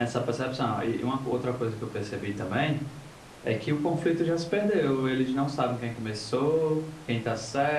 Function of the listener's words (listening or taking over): listening